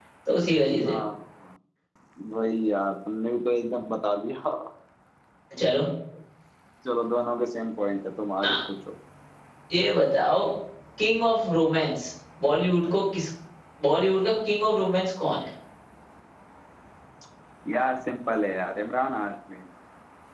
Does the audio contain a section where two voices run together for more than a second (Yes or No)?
No